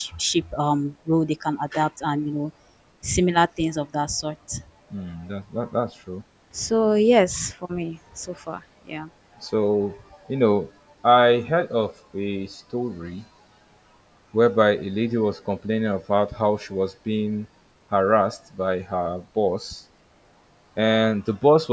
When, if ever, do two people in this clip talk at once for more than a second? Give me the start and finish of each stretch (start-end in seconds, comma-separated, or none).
none